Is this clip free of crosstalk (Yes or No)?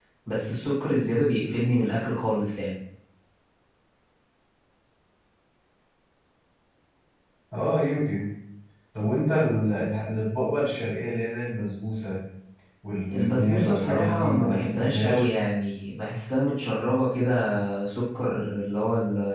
No